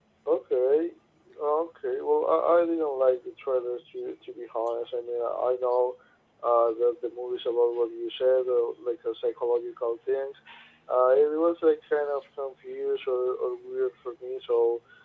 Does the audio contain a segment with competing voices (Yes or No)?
No